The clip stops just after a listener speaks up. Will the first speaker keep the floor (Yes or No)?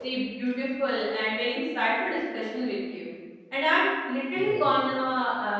Yes